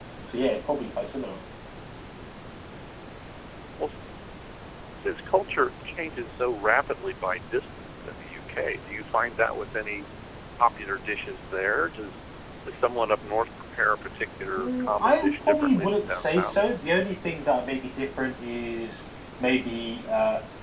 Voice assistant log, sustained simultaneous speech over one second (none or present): present